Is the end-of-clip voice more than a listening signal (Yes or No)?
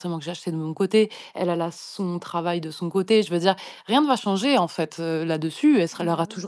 No